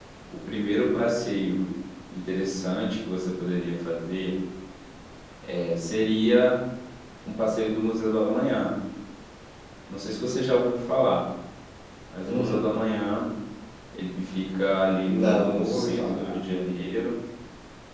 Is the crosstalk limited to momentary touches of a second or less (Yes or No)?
No